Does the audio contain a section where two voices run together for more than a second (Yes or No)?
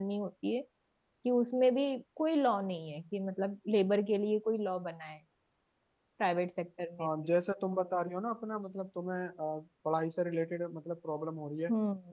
No